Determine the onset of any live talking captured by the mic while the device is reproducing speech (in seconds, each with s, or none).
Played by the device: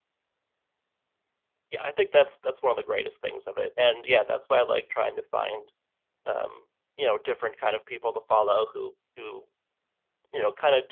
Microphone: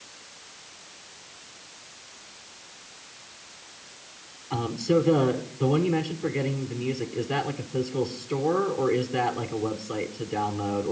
4.5 s